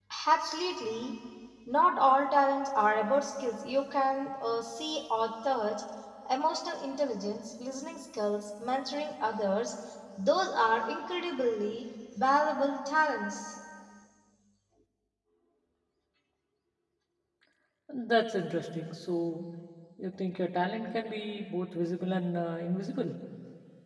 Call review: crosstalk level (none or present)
none